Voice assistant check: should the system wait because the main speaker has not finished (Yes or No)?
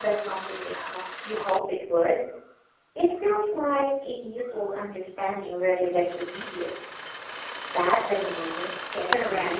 No